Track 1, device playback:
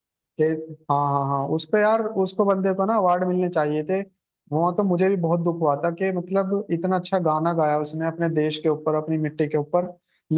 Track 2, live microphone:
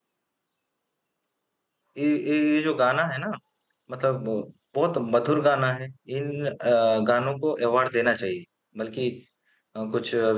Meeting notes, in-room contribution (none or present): present